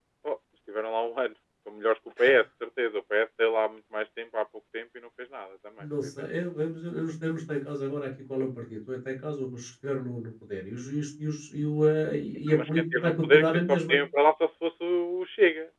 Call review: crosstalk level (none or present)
present